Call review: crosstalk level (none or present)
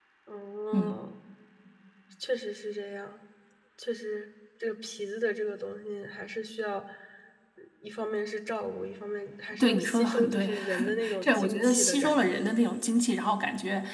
present